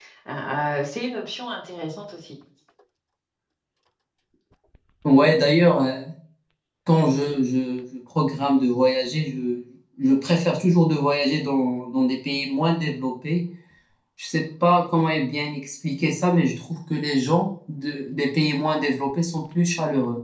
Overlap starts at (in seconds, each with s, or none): none